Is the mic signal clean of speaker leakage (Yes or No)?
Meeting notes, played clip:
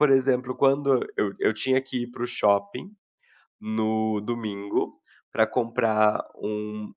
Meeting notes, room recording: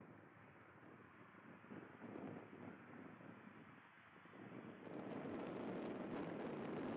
Yes